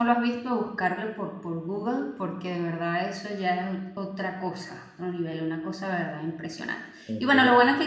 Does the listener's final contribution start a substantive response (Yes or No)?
No